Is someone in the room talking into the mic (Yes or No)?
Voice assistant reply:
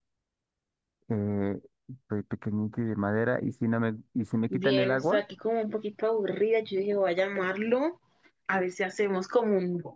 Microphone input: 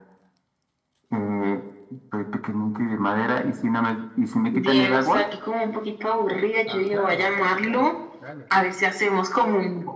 Yes